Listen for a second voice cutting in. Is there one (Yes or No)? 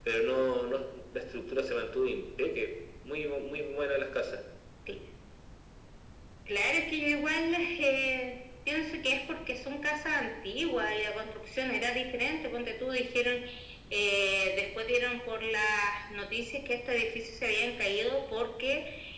No